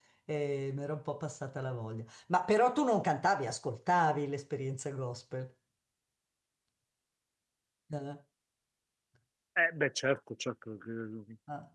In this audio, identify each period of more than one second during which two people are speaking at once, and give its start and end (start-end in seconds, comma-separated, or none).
none